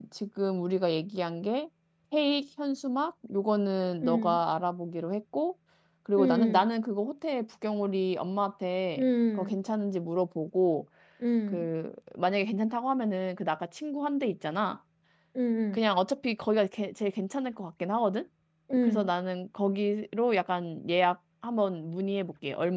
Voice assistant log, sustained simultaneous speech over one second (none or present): none